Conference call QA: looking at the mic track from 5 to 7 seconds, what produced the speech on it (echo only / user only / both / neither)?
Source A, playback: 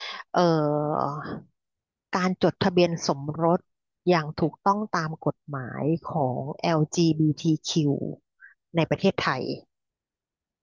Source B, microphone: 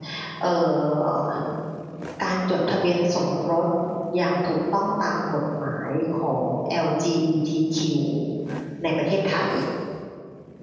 echo only